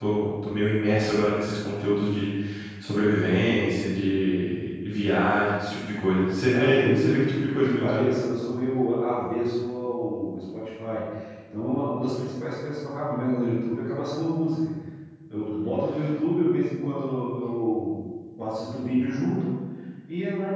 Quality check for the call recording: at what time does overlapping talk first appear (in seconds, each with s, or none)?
6.5 s